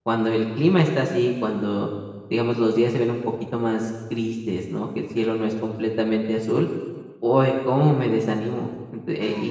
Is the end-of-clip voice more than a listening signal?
No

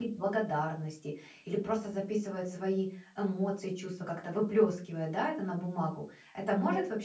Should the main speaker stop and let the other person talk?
Yes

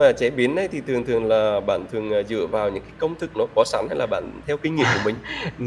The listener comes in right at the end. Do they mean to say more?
Yes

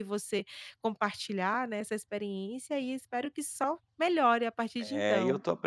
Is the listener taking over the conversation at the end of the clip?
Yes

